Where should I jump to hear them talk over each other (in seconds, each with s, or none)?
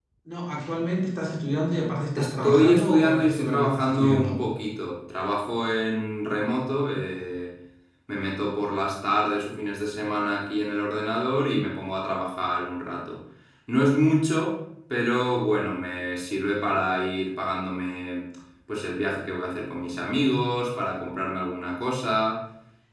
2.1 s